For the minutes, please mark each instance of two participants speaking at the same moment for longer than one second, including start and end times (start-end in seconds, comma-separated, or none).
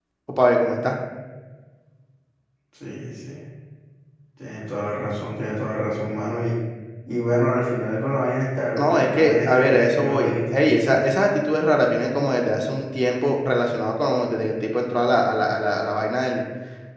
8.8-10.8